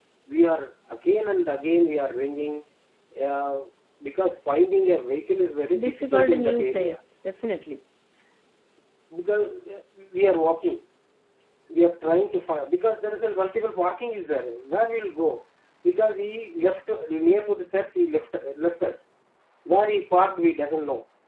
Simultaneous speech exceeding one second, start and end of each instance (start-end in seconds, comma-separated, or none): 5.8-7.0